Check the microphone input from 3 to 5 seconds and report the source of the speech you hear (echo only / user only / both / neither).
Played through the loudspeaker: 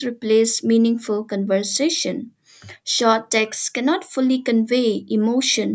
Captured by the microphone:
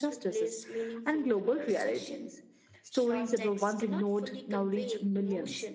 both